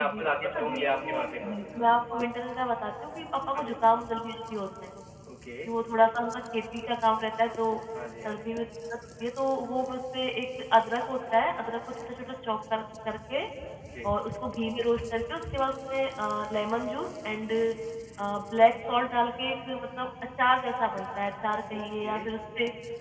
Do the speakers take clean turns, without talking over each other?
No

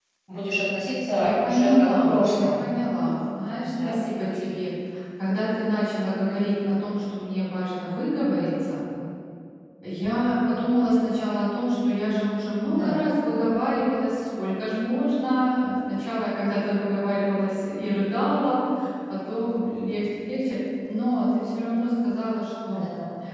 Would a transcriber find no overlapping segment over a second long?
No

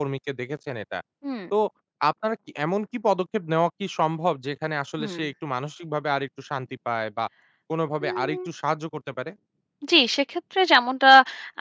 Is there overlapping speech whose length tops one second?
No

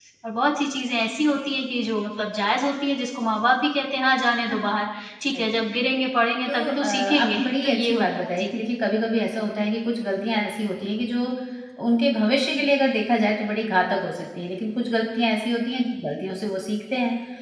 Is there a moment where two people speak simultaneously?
Yes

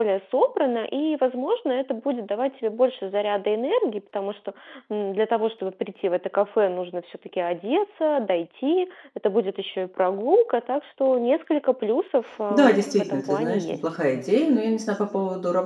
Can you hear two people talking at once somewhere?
Yes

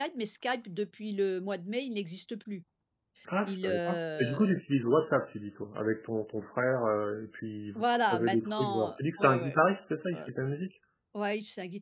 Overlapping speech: Yes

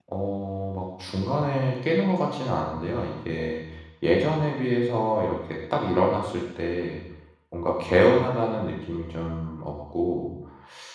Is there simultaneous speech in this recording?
No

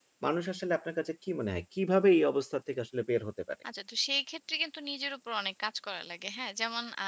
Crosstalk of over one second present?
No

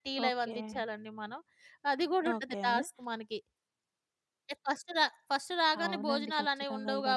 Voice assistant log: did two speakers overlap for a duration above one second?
Yes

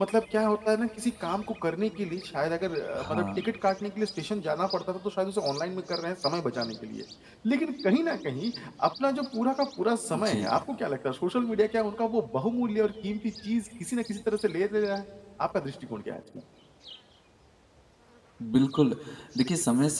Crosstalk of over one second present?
No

